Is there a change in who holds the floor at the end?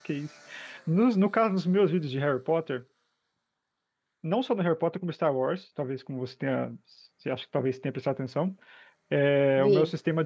No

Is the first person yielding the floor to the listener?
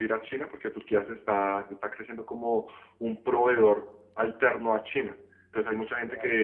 No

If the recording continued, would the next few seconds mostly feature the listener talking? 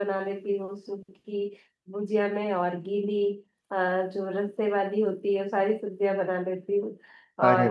No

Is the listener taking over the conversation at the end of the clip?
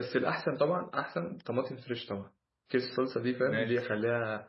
No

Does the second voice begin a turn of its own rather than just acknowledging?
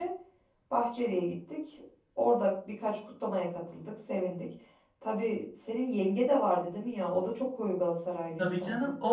Yes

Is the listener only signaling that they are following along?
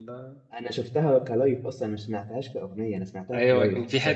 No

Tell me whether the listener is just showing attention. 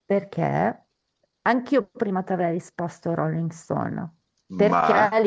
Yes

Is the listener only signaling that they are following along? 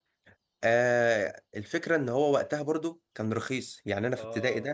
Yes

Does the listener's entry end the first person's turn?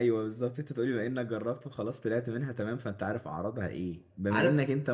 No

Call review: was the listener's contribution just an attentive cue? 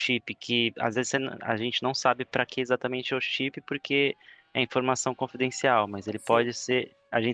Yes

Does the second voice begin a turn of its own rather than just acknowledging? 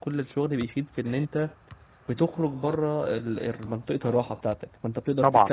No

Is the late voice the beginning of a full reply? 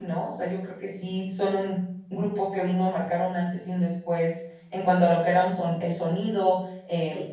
No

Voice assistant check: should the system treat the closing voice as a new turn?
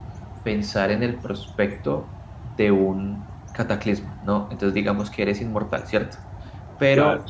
No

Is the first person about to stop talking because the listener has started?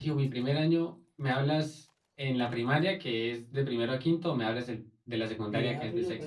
Yes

